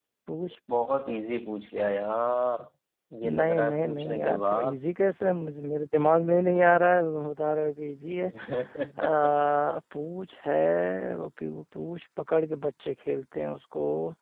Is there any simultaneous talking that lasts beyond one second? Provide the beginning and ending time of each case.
3.2-4.8

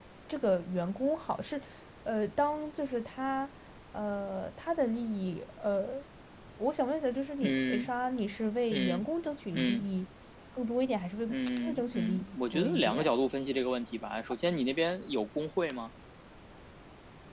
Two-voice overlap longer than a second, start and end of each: 11.3-13.1

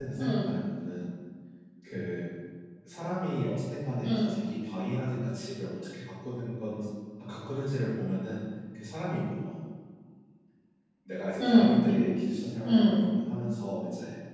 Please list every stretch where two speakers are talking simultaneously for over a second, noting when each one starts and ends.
none

